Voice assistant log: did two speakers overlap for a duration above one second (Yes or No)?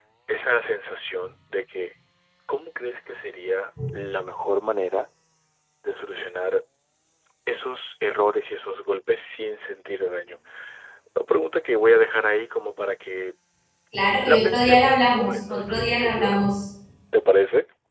Yes